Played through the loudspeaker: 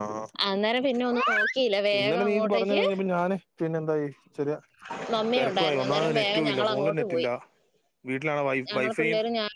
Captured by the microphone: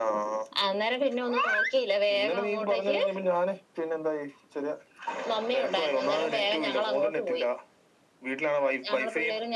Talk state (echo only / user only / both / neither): echo only